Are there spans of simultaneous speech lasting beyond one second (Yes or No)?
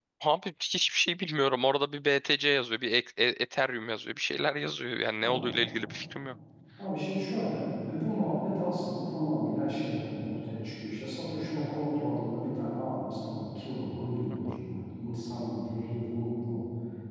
No